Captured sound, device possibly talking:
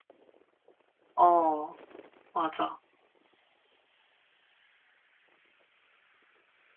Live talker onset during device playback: 1.1 s

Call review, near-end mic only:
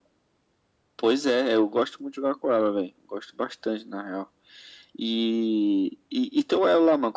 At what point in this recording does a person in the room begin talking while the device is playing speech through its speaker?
none

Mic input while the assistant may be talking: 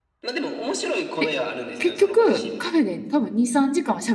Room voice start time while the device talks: 1.2 s

